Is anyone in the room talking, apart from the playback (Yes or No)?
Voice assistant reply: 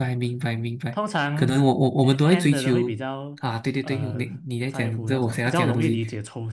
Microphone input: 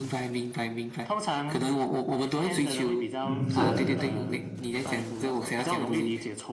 Yes